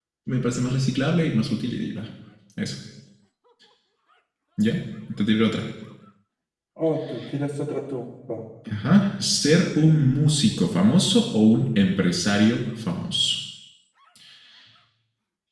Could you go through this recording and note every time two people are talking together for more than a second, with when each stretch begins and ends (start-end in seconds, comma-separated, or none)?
none